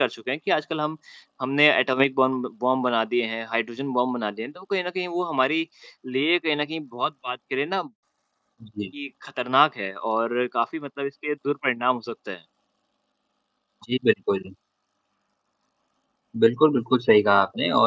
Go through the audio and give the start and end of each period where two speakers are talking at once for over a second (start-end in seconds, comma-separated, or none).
none